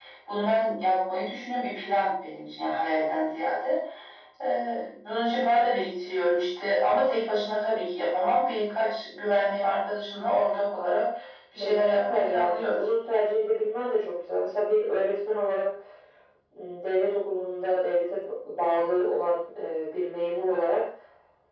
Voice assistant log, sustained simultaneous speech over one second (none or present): present